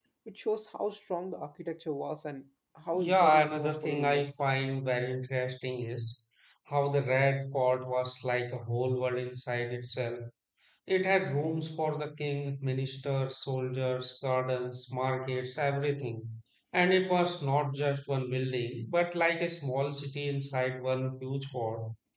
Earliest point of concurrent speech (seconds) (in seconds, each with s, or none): 2.9 s